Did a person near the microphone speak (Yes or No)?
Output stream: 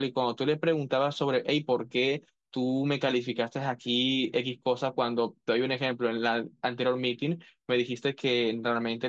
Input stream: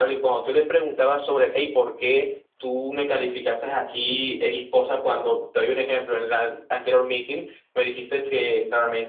No